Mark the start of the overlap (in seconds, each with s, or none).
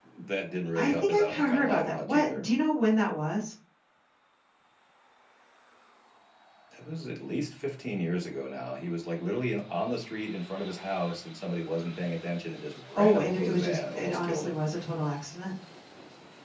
0.7 s